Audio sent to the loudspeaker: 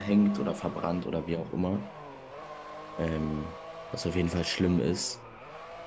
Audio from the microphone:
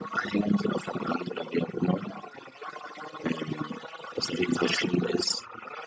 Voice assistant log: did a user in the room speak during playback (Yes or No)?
No